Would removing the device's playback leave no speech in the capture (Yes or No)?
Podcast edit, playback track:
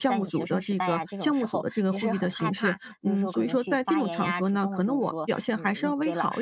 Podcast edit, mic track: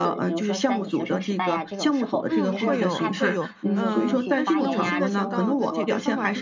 No